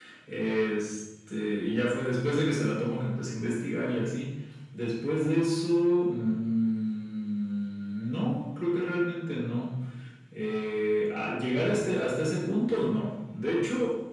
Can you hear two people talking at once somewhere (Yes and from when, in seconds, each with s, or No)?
No